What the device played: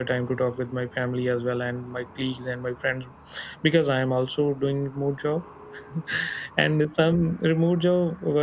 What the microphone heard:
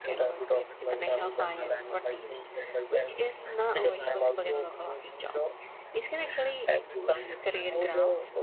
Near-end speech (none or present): present